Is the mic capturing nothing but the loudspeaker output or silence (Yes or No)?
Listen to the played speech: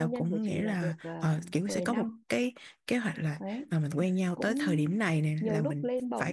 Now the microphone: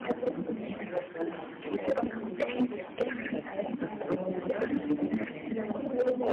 No